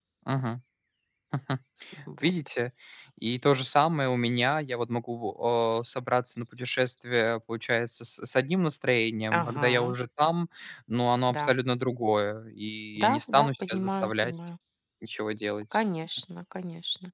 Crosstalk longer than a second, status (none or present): present